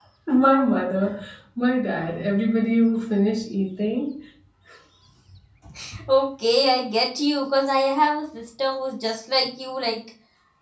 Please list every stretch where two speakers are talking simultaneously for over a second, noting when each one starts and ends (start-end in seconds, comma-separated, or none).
none